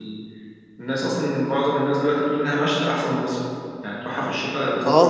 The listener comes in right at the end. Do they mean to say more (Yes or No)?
Yes